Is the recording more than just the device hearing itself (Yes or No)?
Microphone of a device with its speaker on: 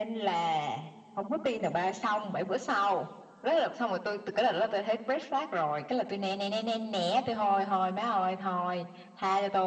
No